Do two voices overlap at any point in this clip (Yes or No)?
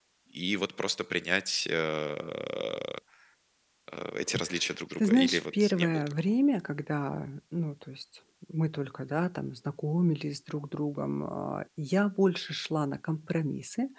Yes